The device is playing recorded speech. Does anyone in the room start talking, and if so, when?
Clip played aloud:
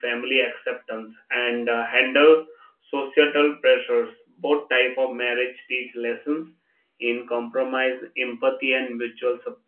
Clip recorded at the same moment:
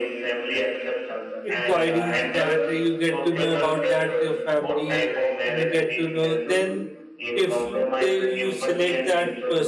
1.4 s

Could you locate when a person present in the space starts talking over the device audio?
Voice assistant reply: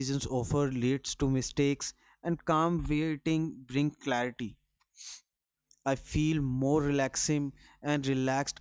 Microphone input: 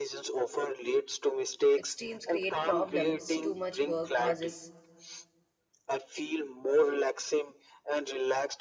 1.8 s

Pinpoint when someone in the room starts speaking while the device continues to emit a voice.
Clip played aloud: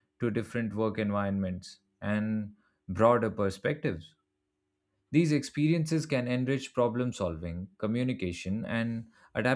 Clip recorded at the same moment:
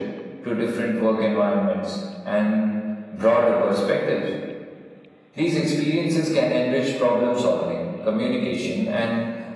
none

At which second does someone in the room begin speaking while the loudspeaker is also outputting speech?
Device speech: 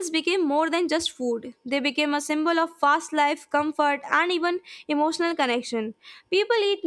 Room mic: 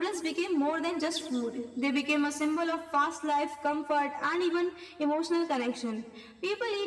none

